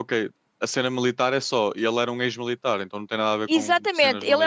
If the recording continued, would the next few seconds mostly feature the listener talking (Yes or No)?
Yes